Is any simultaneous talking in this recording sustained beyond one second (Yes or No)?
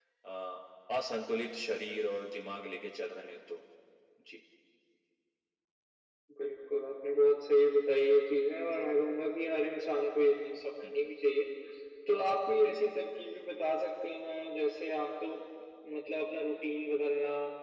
No